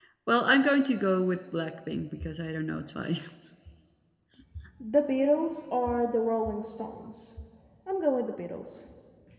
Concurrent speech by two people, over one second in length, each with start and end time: none

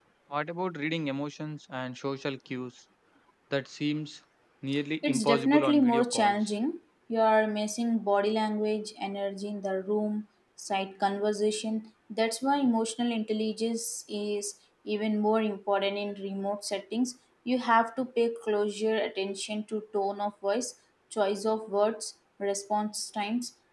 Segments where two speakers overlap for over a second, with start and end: 5.0-6.4

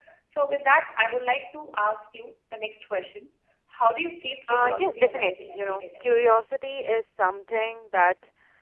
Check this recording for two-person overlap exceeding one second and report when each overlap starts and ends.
4.5-6.0

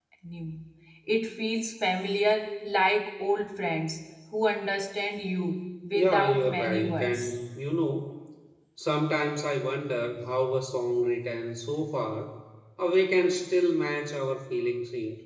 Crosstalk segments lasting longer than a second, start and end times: 5.9-7.2

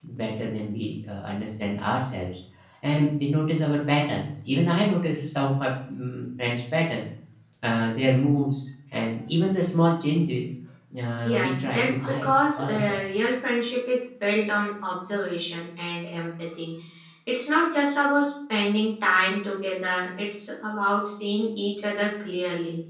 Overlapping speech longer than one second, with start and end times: 11.2-13.0

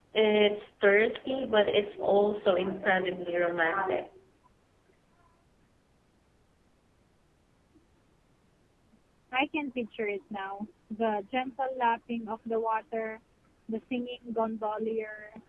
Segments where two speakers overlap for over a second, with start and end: none

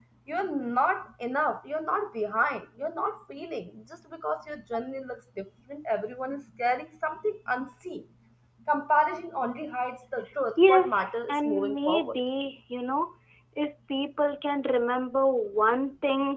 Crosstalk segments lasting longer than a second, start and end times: 10.6-12.2

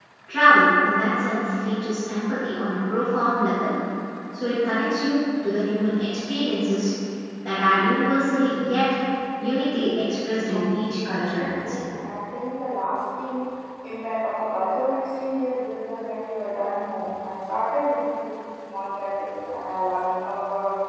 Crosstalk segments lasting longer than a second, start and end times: 10.5-11.8

